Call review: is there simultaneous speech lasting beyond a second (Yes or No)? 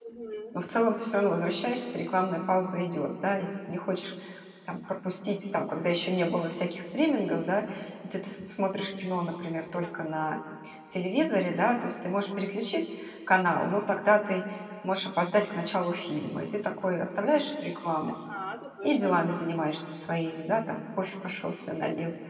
No